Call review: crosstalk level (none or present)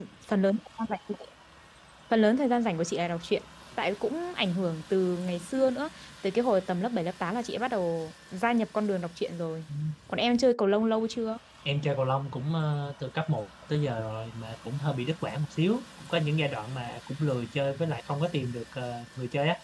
none